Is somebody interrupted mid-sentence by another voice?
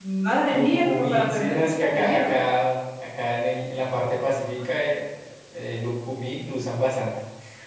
Yes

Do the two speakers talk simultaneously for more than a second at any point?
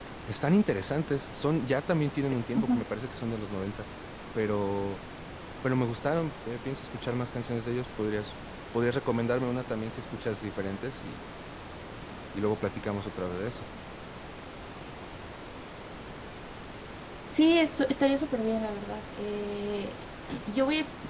No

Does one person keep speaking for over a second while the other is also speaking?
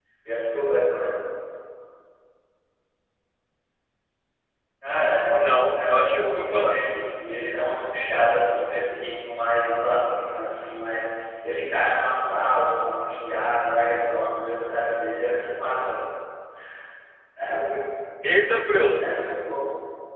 Yes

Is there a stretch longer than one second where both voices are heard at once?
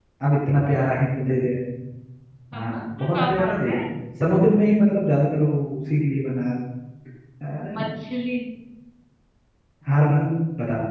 Yes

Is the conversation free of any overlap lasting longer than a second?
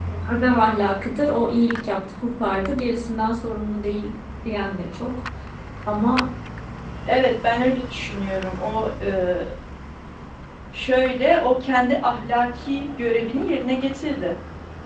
Yes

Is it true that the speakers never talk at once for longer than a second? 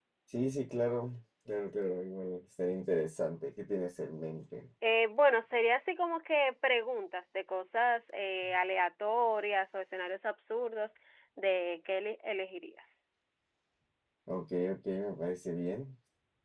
Yes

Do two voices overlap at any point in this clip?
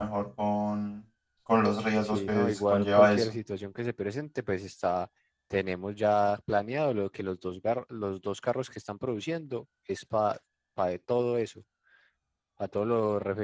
Yes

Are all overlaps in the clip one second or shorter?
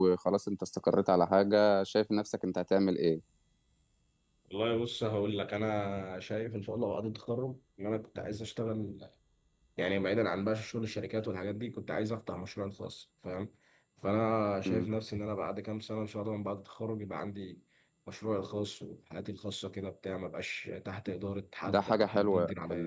No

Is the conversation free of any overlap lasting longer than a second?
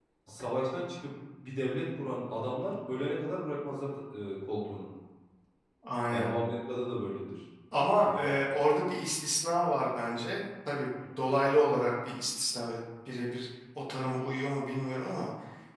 Yes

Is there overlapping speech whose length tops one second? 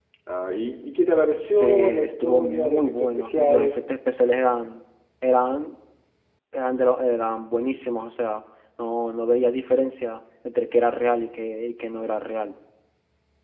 Yes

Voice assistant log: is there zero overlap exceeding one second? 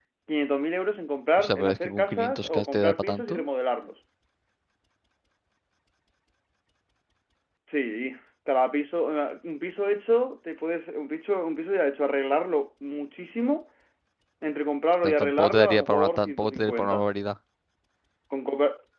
No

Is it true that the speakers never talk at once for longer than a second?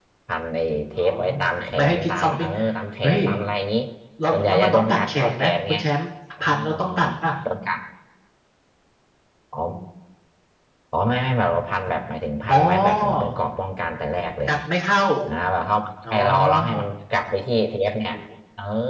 No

